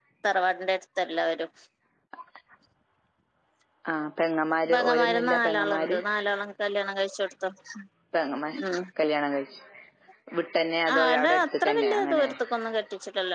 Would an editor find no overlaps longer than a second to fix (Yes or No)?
No